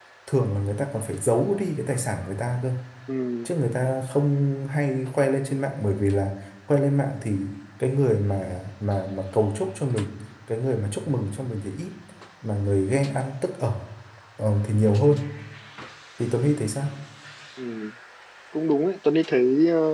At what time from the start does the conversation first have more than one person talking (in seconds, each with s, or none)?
none